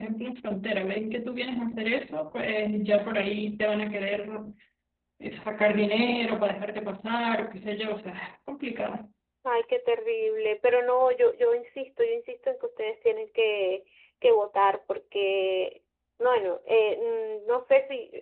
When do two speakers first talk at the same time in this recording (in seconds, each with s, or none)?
none